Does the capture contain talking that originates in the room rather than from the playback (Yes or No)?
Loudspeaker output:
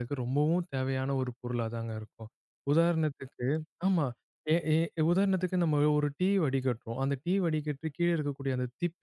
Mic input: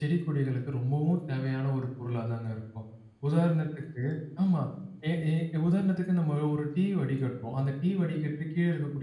No